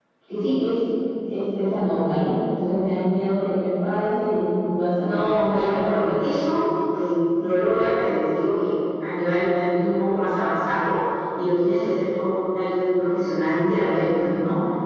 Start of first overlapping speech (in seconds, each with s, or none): 5.0 s